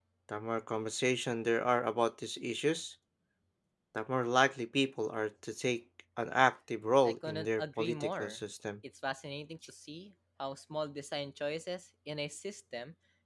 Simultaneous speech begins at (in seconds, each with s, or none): 7.0 s